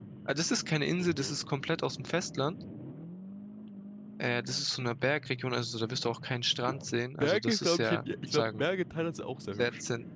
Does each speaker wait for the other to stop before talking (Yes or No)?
No